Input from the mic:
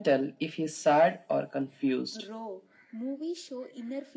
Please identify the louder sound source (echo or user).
echo